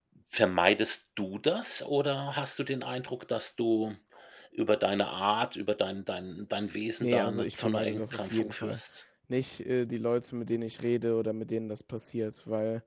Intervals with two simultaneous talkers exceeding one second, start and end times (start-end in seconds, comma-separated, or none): 7.0-8.8